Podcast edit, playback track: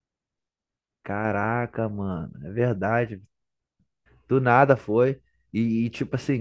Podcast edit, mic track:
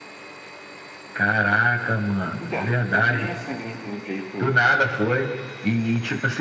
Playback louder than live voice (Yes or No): Yes